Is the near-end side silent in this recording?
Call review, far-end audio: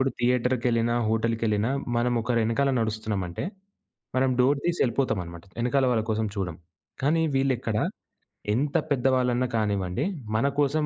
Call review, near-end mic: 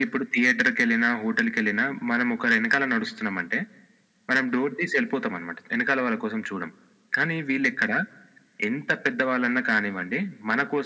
Yes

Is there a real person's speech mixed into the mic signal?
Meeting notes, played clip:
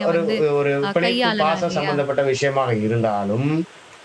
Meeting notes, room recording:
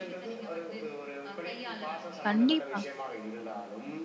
Yes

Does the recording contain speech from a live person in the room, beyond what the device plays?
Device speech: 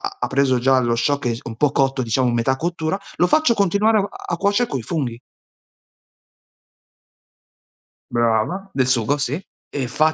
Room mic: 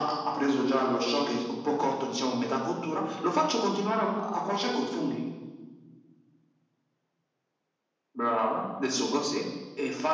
No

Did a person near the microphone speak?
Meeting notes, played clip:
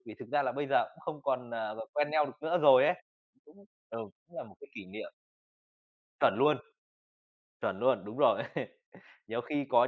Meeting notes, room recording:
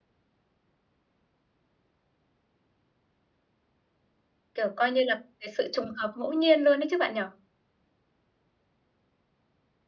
Yes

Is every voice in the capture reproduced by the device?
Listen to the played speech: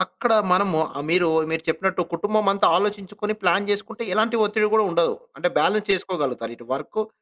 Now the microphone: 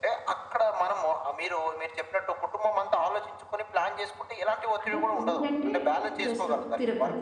No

